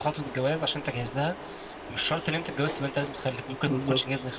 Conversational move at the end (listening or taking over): taking over